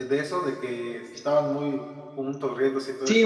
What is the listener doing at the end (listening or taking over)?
taking over